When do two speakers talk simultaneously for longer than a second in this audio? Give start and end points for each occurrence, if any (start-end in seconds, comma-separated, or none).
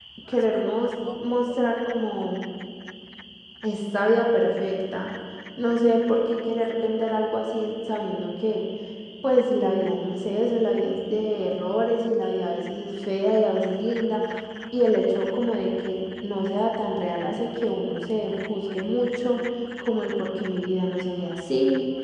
none